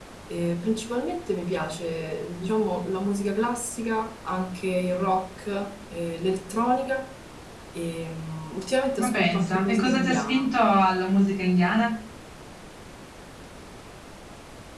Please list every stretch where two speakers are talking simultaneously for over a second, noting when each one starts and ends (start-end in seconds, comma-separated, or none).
9.0-10.5